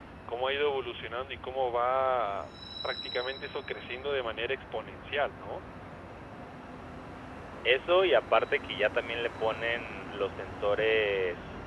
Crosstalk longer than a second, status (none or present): none